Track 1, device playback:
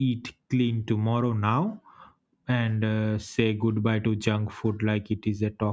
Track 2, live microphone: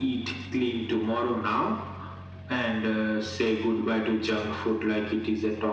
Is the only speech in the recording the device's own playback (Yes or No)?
Yes